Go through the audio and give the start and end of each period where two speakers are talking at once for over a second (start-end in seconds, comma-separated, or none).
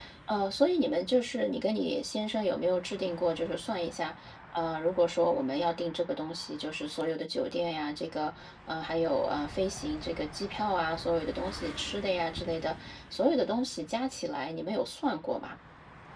none